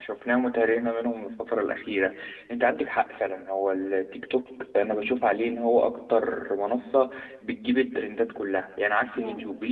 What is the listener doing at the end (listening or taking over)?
listening